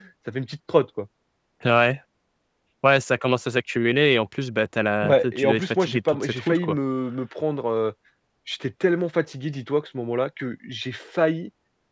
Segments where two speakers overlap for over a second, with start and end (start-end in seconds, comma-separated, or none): 5.0-6.8